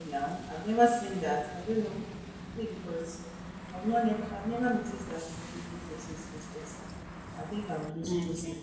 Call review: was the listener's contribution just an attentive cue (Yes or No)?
Yes